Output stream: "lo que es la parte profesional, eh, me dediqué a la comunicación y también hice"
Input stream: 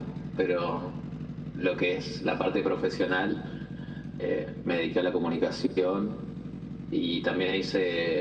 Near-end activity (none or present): none